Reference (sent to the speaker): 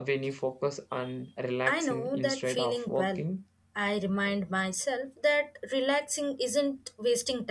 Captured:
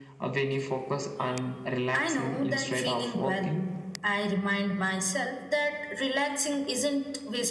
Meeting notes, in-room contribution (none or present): none